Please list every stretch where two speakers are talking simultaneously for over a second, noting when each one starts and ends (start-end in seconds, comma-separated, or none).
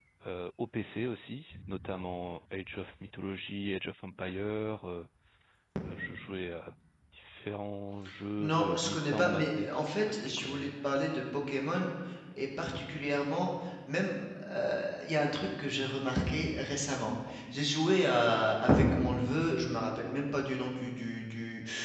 8.4-10.7